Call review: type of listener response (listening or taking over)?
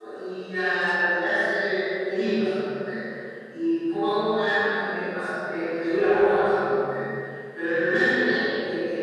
listening